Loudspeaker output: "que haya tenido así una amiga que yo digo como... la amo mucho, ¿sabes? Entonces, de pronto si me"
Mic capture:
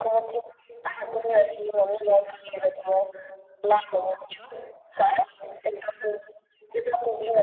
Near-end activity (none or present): none